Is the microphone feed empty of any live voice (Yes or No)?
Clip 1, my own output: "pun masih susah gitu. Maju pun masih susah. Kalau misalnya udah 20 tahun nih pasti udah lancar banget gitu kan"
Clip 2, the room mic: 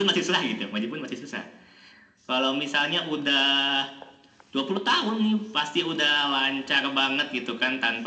Yes